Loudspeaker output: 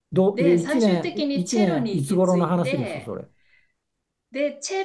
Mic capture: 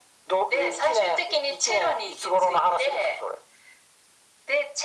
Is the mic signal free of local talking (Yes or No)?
Yes